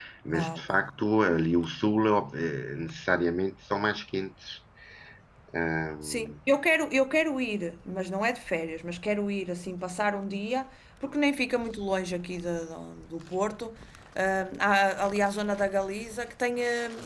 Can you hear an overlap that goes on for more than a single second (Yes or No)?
No